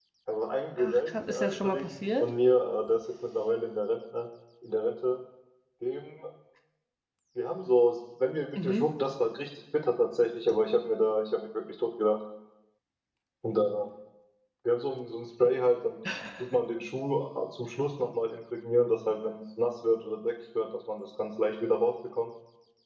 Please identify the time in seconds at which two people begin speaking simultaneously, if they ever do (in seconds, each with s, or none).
0.8 s